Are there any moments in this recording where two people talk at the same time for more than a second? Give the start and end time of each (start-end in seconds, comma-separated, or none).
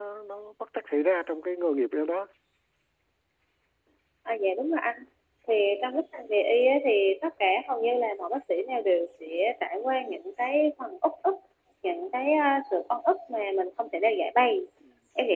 none